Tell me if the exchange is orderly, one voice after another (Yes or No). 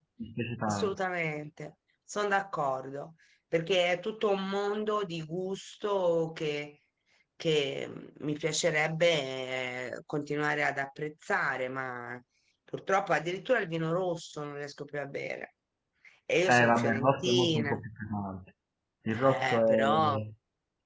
No